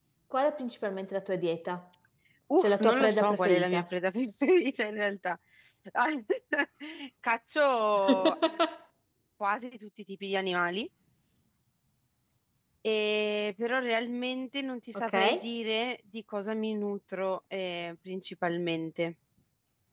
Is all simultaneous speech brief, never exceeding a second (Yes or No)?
No